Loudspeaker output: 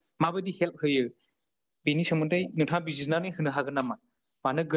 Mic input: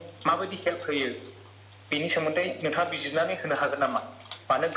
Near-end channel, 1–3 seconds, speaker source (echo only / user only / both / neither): echo only